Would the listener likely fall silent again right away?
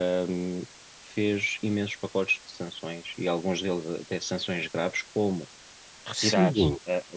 Yes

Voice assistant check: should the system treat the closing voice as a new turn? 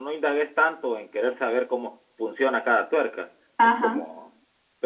No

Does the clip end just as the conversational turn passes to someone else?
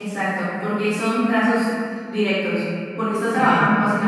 No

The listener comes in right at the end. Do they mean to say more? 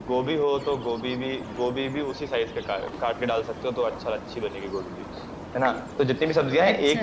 No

